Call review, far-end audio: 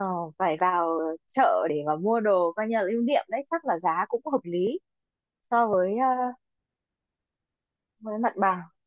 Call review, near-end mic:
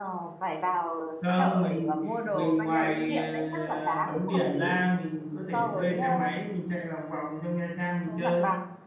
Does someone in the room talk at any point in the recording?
Yes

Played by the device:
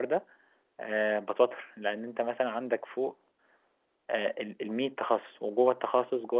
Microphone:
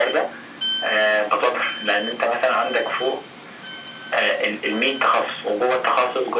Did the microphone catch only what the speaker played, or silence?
Yes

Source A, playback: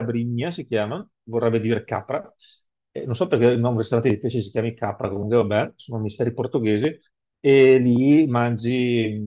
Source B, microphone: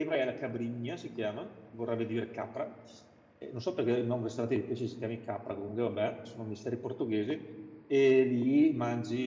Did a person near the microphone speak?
No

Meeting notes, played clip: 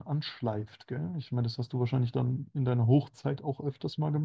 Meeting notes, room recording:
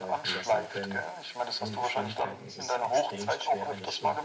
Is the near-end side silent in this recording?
No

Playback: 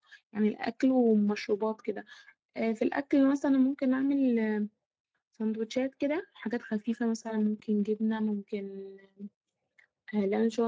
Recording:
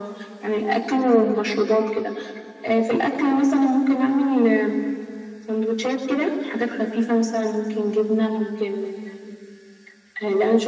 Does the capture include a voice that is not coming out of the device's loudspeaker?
No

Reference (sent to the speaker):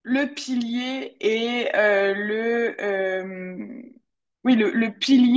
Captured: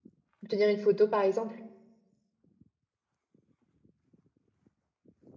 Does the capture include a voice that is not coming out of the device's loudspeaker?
Yes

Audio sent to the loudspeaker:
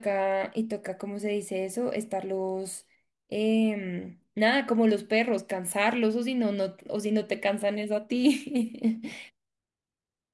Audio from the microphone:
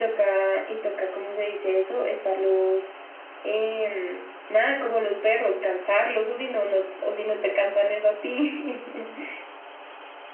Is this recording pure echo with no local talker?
Yes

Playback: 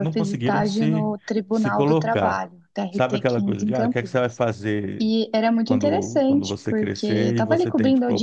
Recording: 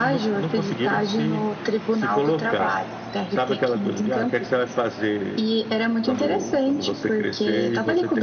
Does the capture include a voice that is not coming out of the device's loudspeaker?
No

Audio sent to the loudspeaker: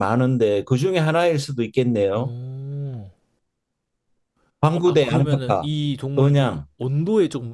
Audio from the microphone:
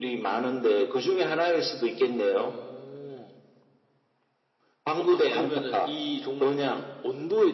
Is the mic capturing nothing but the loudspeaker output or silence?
Yes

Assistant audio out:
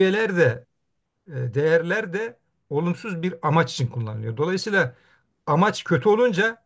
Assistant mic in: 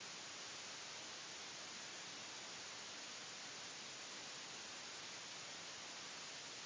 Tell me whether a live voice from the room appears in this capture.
No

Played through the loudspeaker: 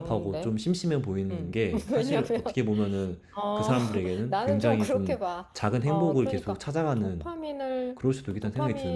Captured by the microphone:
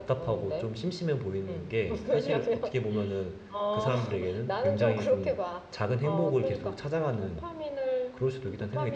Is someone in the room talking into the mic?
No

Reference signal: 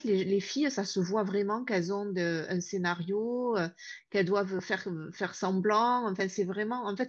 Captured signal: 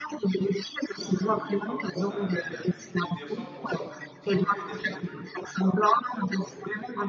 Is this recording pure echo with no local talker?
No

